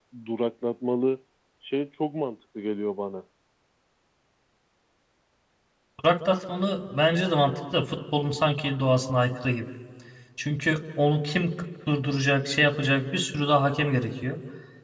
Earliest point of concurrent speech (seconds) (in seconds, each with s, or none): none